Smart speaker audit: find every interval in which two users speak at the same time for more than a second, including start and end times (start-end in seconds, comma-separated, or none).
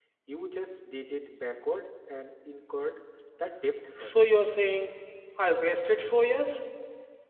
none